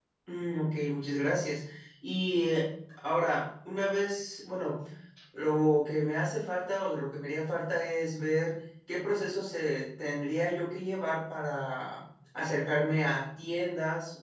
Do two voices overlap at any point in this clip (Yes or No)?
No